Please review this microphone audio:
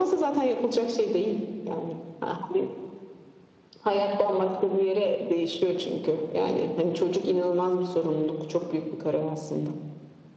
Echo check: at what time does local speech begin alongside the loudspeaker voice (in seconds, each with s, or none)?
none